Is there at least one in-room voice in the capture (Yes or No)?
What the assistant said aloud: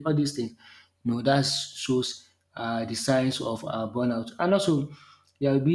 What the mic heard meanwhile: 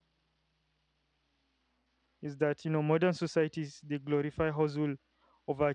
Yes